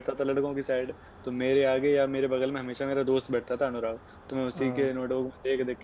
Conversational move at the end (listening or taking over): listening